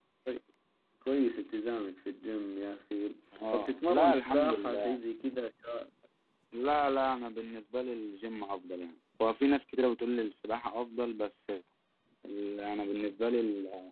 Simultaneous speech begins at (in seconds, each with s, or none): 3.5 s